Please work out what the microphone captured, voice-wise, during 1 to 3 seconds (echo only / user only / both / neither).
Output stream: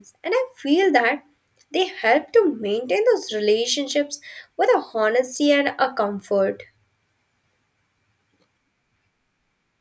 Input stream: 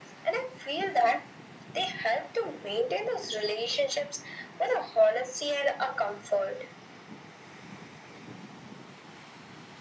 echo only